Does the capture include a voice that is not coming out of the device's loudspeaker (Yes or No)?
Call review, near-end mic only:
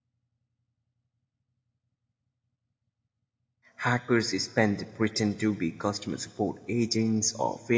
Yes